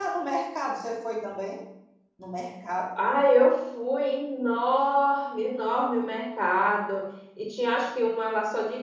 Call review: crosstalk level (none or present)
none